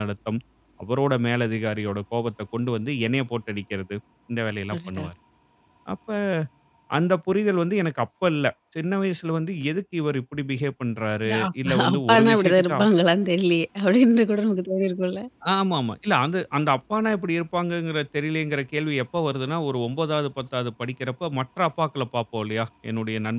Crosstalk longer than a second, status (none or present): present